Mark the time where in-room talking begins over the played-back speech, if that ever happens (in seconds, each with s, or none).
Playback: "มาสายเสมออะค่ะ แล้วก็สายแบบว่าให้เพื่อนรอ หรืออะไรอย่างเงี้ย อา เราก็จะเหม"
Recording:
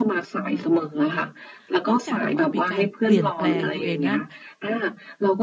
0.4 s